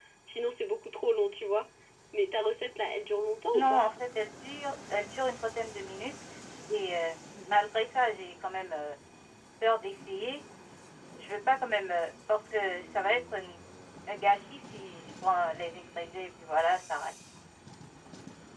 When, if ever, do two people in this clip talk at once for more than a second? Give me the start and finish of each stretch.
none

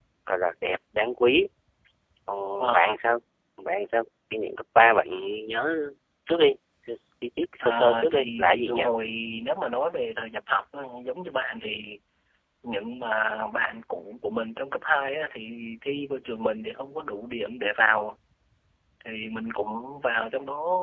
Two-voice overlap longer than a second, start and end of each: 7.6-8.8

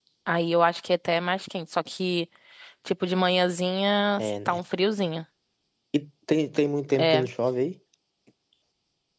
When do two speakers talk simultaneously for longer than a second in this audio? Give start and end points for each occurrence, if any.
none

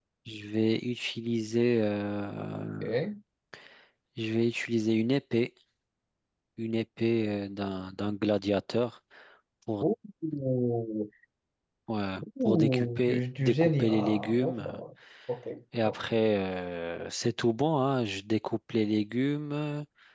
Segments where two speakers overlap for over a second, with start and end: 12.4-14.8

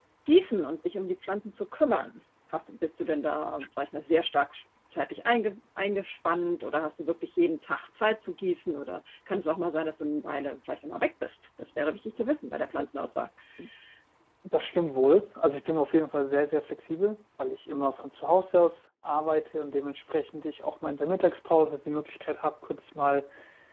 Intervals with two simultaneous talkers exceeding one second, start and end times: none

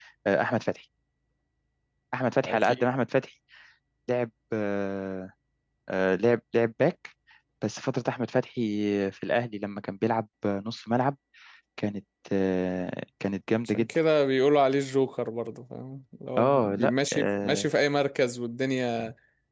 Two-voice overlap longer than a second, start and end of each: 16.4-17.7

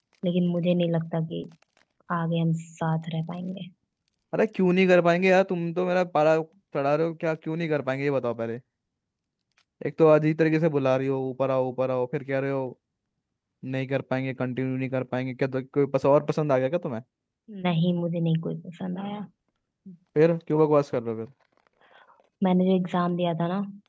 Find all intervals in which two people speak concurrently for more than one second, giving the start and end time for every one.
none

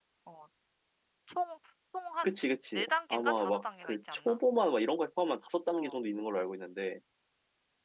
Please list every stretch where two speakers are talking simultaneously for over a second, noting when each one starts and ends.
2.8-4.4

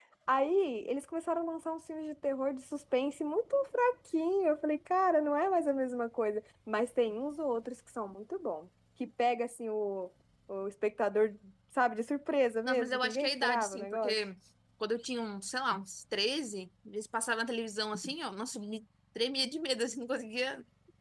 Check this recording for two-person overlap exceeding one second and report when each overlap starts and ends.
12.6-14.1

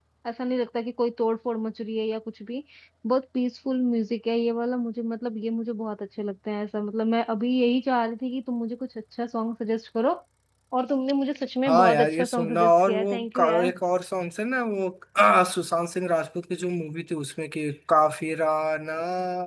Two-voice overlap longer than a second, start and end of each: 11.7-13.7

